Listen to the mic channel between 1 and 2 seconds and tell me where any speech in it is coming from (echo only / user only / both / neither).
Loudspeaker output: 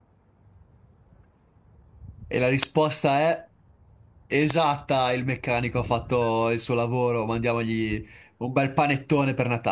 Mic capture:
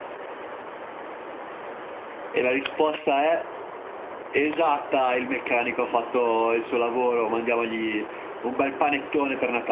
neither